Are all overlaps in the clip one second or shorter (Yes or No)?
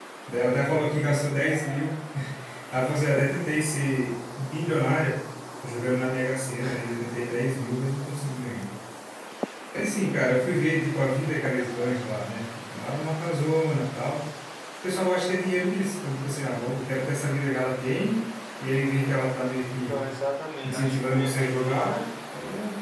No